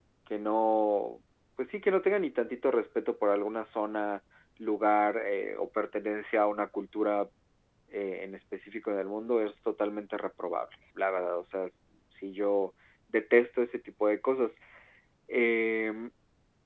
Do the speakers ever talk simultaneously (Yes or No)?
No